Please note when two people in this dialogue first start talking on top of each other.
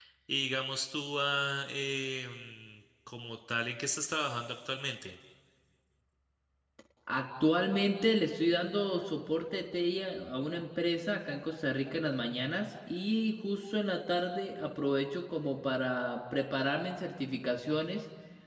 none

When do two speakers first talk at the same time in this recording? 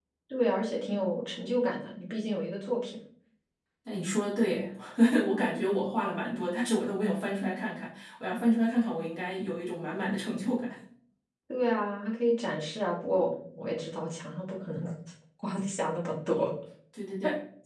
none

